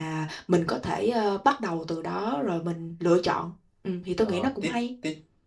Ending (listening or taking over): taking over